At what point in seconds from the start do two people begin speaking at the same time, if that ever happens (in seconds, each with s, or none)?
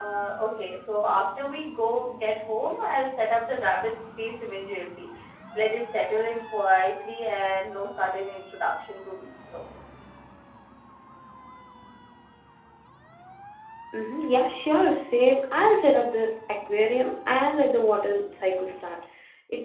none